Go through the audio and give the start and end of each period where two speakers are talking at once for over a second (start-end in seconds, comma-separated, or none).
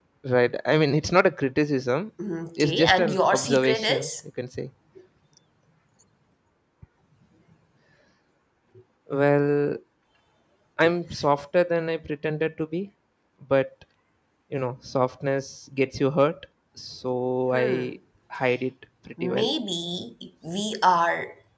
2.6-4.1